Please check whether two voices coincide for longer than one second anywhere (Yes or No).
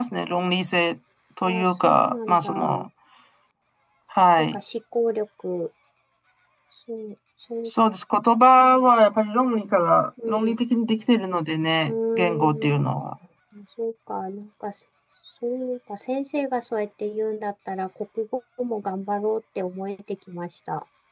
Yes